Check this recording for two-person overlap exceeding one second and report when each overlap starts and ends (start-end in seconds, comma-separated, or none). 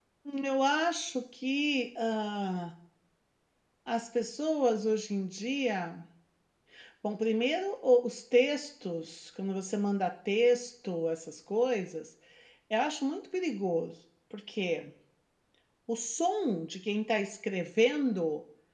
none